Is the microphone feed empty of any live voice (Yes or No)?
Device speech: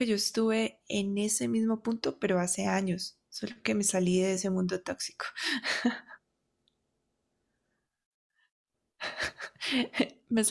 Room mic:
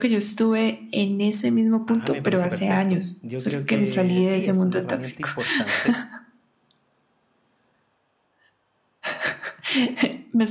No